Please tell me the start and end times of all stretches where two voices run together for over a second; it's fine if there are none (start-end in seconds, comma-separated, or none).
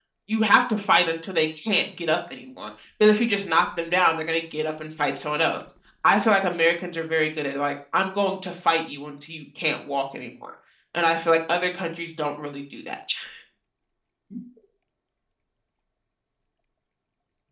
none